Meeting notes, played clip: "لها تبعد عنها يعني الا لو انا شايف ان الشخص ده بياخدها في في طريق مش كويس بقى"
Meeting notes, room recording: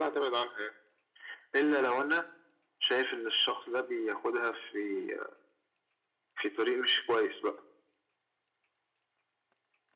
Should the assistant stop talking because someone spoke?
No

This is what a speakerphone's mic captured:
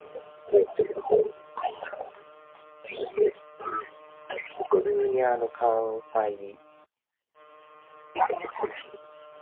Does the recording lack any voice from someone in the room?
No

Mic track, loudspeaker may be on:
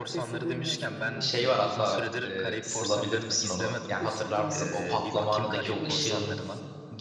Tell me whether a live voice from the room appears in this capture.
Yes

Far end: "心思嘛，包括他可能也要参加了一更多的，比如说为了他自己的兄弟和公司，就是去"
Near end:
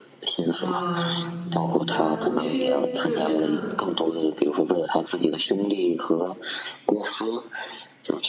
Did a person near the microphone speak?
Yes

